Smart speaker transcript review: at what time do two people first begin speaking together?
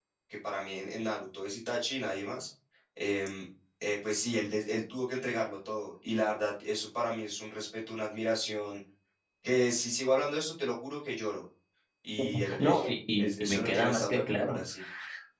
12.6 s

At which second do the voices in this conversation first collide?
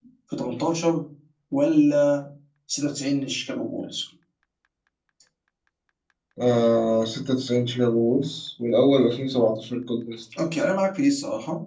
none

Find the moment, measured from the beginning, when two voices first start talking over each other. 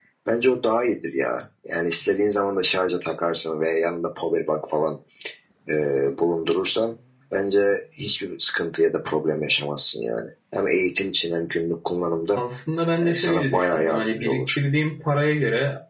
13.0 s

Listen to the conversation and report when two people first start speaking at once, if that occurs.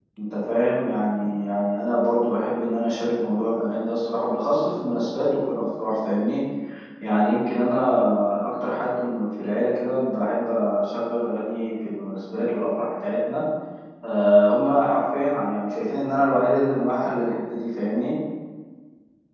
none

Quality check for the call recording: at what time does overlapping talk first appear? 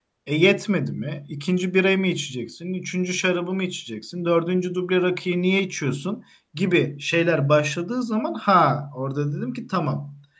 none

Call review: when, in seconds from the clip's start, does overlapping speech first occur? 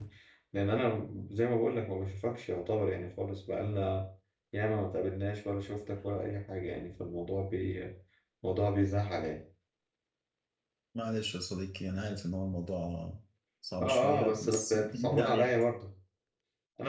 13.8 s

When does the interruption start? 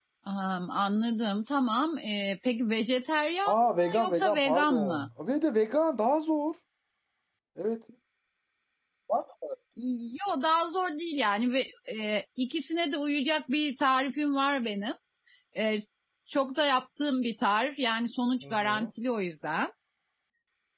3.5 s

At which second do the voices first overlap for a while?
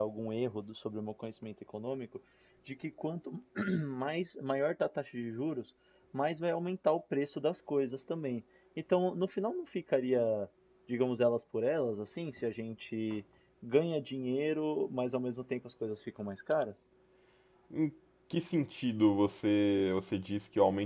none

